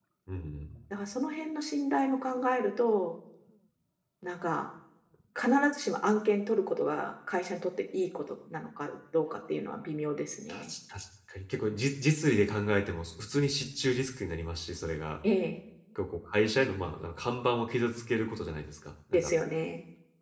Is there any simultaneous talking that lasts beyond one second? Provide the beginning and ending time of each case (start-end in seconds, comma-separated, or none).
none